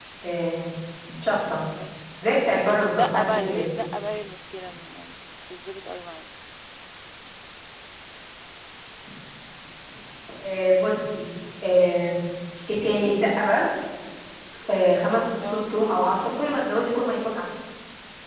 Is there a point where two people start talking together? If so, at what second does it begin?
2.3 s

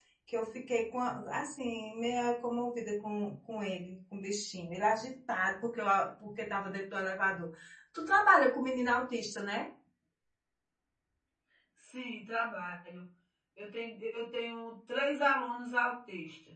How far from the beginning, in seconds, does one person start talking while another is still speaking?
none

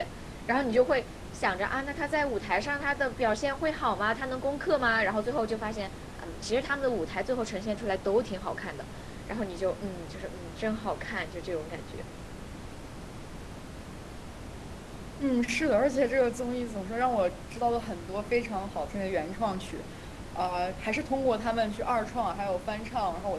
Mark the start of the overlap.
none

